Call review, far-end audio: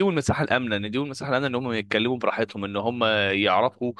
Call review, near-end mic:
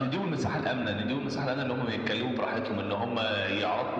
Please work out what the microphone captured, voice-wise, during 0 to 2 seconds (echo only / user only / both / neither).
echo only